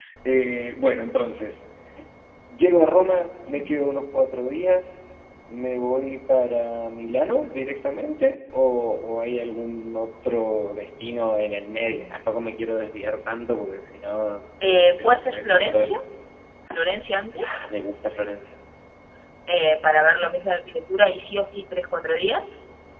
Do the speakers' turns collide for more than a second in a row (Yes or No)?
Yes